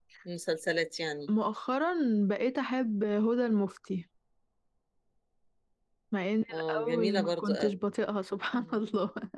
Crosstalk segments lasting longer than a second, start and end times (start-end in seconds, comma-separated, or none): 6.5-7.8